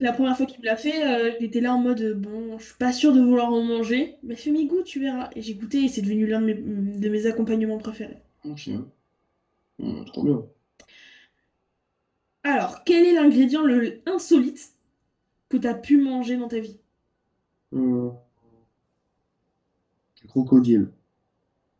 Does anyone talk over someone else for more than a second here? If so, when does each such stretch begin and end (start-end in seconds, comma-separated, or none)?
none